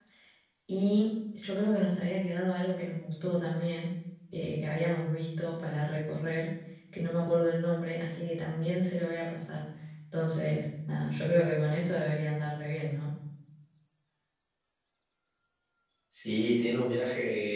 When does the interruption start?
none

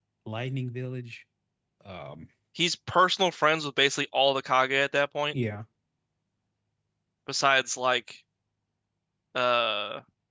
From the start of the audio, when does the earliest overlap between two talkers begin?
none

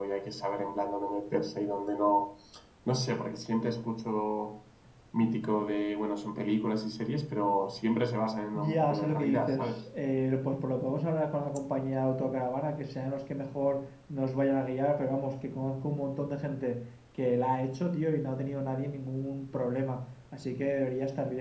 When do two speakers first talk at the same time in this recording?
8.5 s

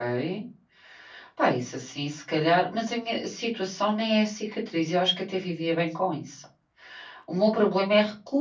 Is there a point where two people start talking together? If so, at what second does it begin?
none

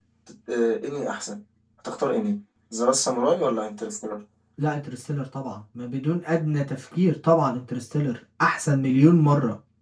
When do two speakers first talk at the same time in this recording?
none

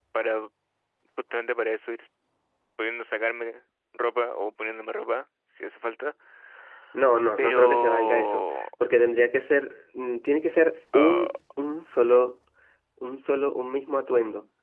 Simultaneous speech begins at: 7.4 s

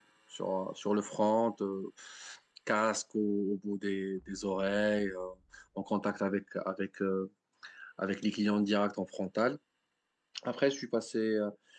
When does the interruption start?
none

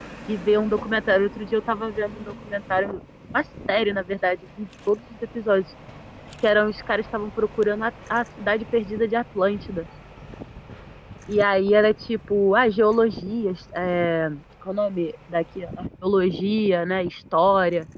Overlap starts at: none

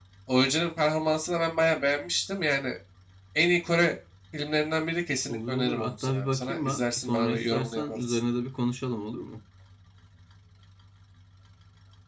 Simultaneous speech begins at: 5.3 s

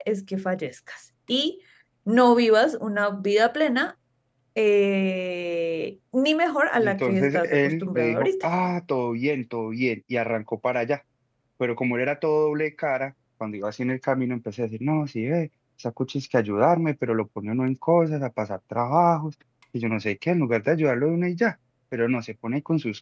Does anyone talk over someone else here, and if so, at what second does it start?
6.8 s

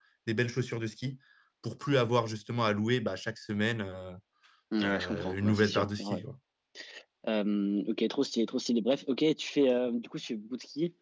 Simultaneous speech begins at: 4.8 s

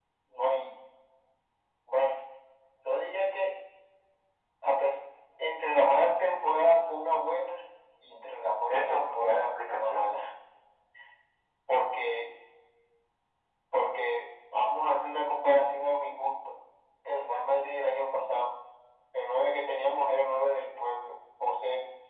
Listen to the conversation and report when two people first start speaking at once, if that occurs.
8.7 s

